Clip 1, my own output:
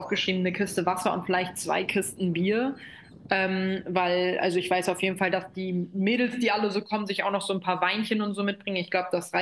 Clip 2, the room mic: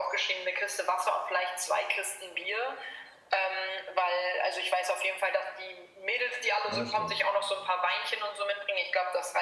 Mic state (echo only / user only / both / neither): both